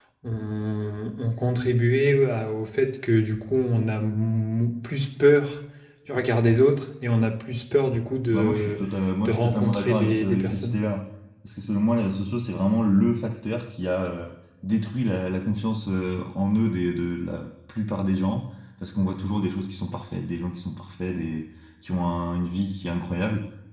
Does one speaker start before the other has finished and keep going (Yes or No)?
Yes